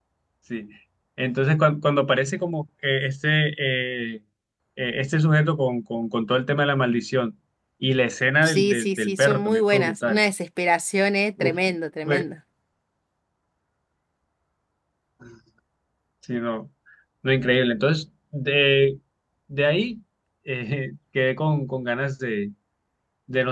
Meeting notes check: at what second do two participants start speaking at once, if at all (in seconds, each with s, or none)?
8.4 s